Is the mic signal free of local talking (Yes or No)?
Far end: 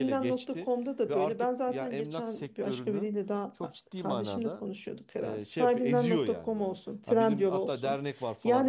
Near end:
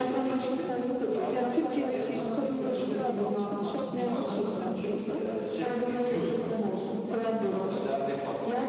No